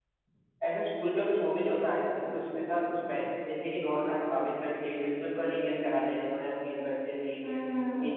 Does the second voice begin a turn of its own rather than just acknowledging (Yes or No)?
Yes